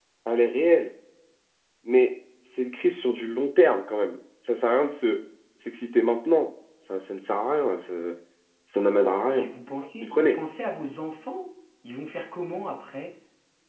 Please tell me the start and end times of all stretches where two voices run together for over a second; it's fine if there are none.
none

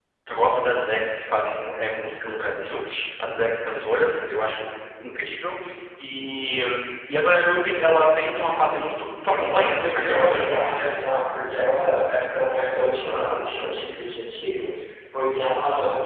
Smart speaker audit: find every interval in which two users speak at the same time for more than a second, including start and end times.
9.4-11.1

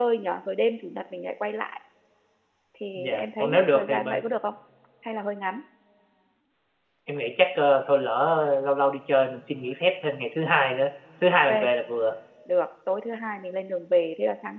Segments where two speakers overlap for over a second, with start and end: 2.9-4.2

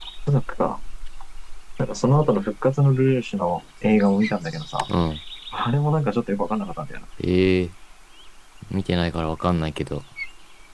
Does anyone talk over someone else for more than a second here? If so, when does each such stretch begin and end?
none

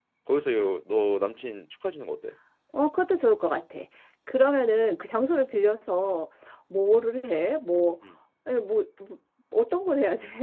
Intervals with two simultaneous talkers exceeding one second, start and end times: none

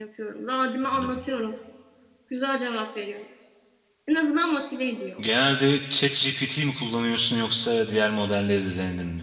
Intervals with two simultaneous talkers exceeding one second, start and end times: none

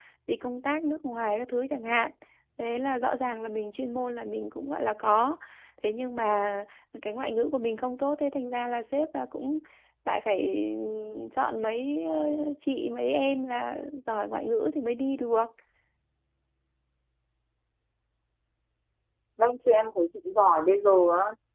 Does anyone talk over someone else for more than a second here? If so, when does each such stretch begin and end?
none

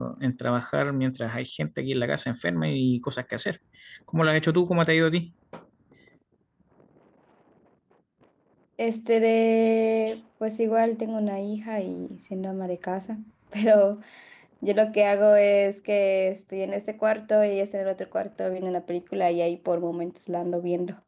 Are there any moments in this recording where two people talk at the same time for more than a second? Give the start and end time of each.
none

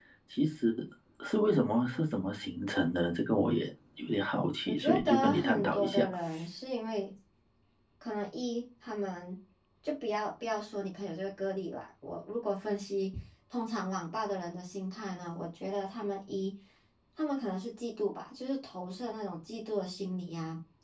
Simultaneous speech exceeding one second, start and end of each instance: 4.7-6.0

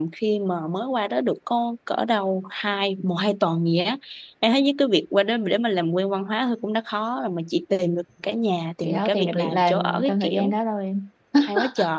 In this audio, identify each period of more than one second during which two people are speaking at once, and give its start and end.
8.8-10.5

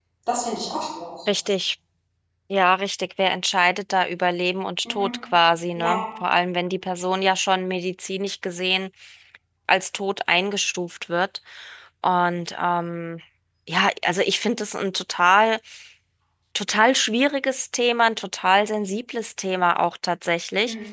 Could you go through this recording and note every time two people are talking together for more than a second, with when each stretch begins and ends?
none

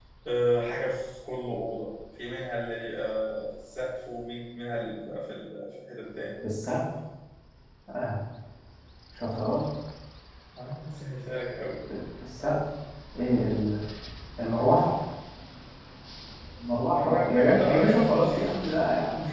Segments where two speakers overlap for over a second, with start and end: 16.9-18.2

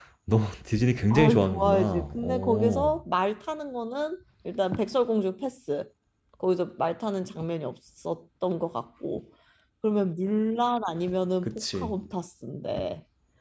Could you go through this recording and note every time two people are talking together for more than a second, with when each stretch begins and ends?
1.1-3.0

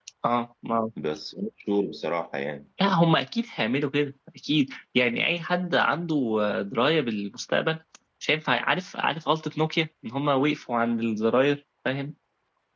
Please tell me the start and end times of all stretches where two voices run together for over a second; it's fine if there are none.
none

